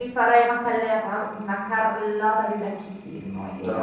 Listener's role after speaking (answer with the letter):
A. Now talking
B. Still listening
A